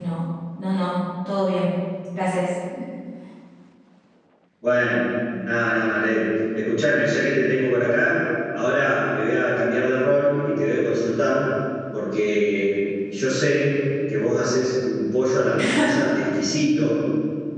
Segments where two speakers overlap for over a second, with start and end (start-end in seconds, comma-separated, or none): none